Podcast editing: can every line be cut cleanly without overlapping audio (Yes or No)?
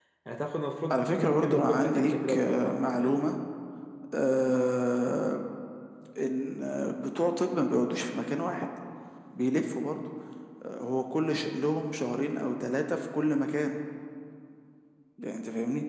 No